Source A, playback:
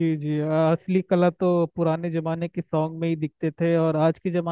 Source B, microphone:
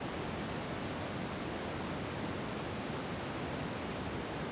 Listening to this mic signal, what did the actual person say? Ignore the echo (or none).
none